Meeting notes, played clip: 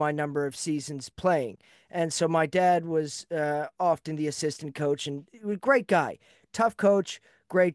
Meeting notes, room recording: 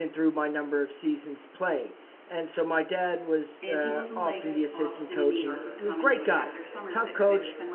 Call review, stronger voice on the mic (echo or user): echo